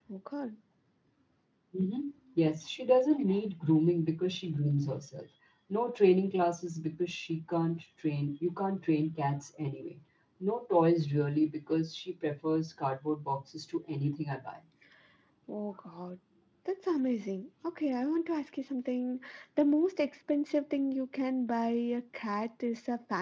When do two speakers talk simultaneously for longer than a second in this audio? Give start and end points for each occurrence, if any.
none

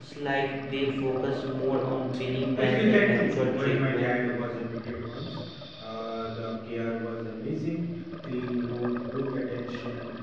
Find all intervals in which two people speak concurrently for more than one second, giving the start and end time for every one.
2.6-4.1

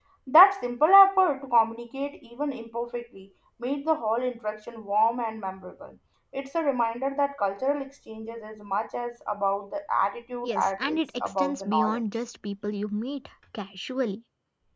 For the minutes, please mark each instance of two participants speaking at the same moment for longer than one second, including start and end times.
10.4-12.0

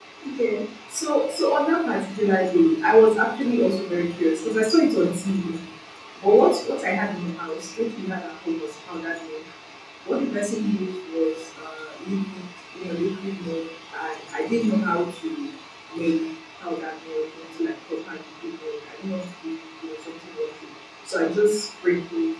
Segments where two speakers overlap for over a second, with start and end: none

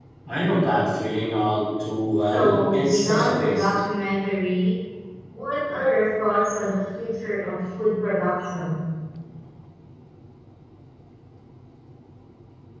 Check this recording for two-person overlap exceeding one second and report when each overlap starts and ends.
2.3-3.7

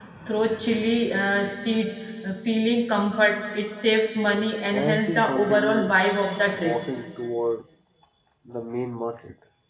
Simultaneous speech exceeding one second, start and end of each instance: 4.7-5.9

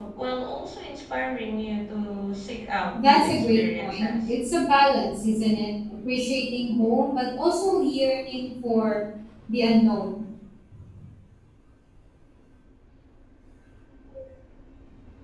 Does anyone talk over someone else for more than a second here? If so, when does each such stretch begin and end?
2.9-4.2

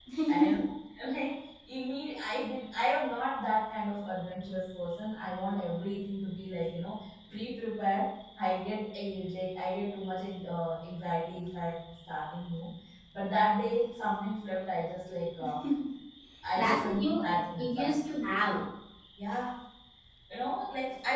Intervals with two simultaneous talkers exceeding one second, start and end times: 16.6-18.0

